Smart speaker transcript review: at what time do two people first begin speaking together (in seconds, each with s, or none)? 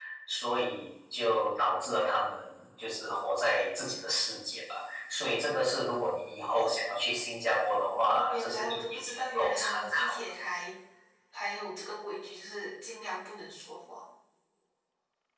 7.9 s